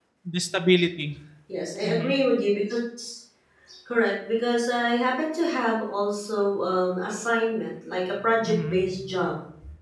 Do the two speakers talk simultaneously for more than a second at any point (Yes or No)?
No